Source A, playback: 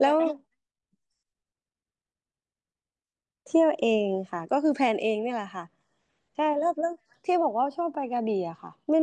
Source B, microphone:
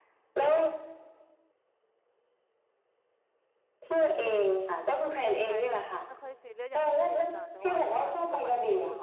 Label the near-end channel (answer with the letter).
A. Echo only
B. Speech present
B